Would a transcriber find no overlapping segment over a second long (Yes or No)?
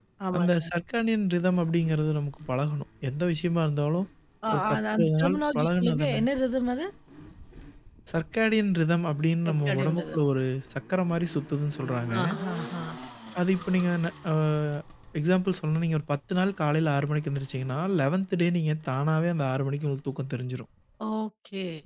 No